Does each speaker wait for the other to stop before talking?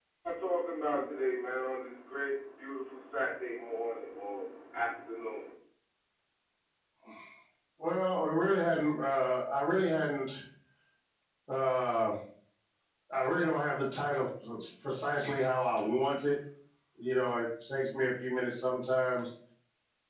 Yes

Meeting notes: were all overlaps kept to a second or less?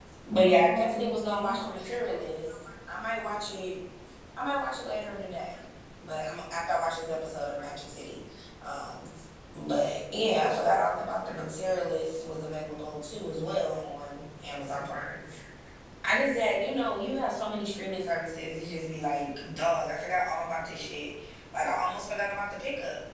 No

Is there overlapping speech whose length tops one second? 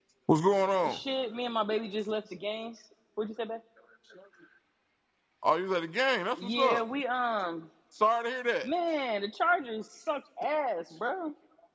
No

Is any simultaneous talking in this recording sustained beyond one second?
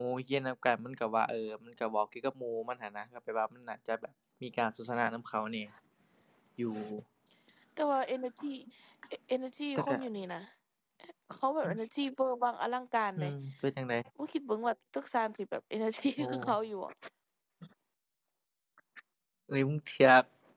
No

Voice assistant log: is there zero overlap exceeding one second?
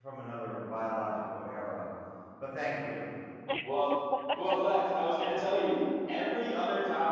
Yes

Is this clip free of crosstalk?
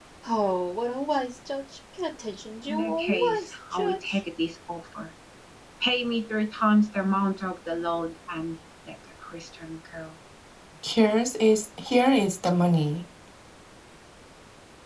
No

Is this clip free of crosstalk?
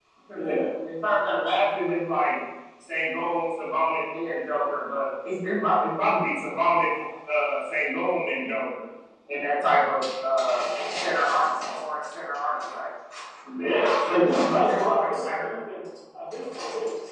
No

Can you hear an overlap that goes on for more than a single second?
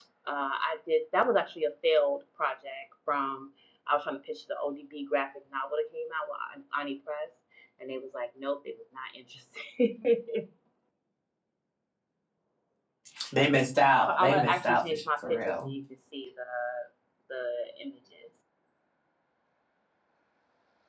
Yes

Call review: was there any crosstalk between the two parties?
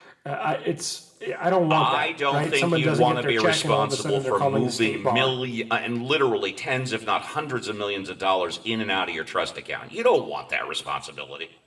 Yes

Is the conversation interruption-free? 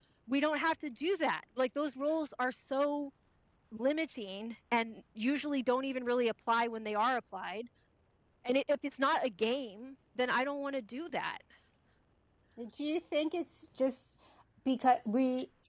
Yes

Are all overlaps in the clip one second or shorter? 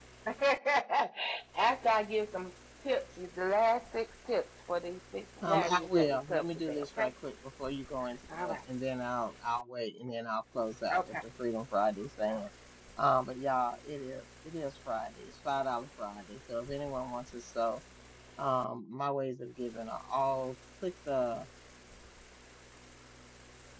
No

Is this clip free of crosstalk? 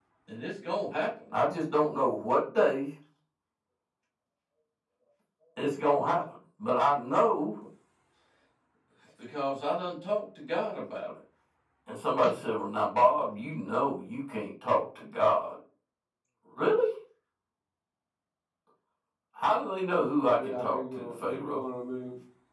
No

